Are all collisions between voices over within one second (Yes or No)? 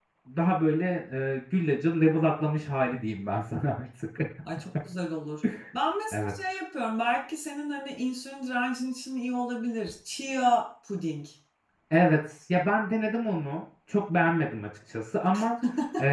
Yes